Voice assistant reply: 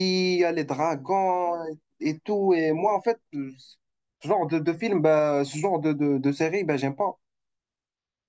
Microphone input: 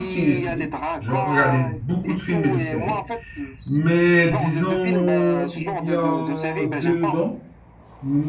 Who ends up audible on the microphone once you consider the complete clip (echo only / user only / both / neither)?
both